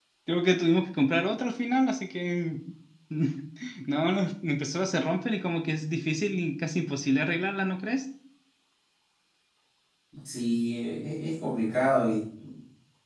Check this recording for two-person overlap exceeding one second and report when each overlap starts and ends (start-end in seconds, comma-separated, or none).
none